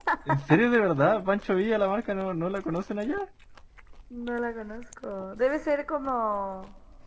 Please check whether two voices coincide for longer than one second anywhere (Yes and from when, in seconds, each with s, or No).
No